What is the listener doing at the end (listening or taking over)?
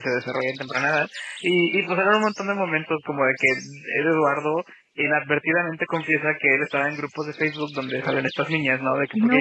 listening